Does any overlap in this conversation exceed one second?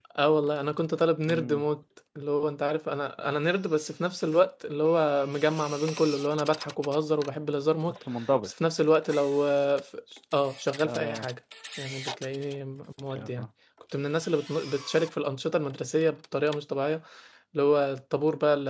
No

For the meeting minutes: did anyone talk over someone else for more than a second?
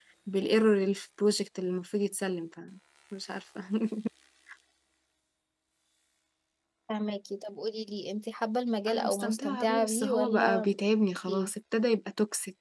Yes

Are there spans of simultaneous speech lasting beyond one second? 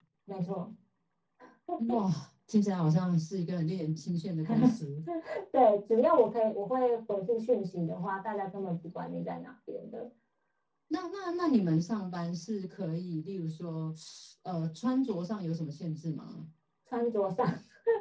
No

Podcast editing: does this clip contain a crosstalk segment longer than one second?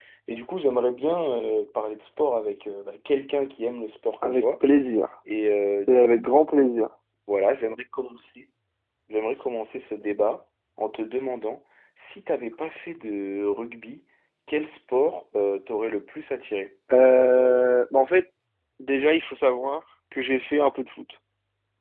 No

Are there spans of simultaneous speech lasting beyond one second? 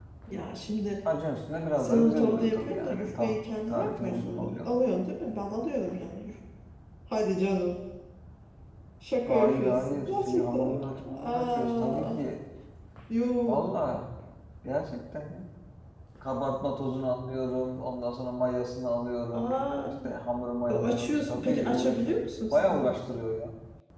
Yes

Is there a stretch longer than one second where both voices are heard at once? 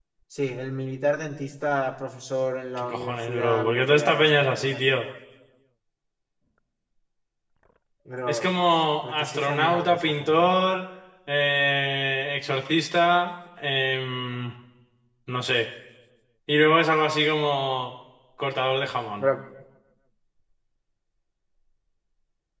Yes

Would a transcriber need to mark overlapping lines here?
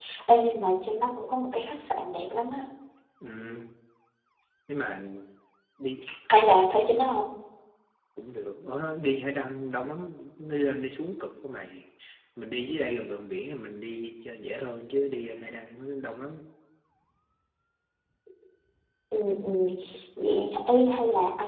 No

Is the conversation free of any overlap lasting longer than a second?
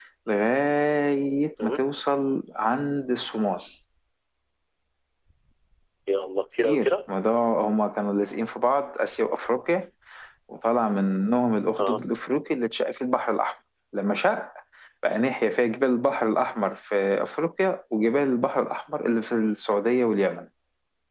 Yes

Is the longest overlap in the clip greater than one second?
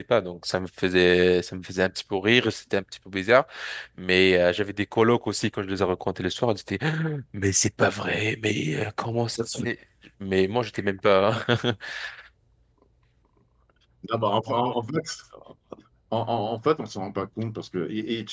No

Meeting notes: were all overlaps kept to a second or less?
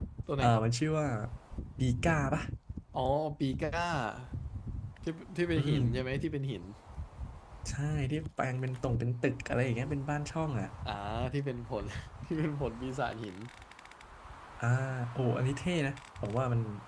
Yes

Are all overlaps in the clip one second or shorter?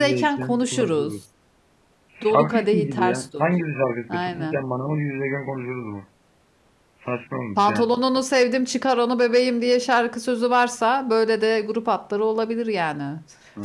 No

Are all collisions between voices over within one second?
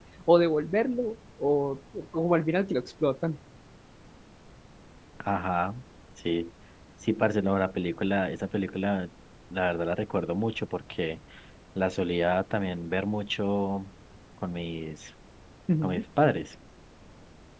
Yes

